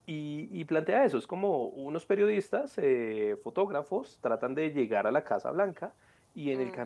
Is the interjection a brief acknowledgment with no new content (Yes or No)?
Yes